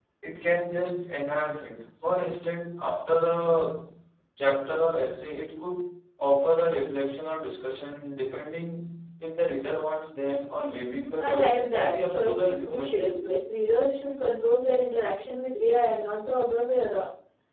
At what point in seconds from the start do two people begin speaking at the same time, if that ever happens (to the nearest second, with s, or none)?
11 s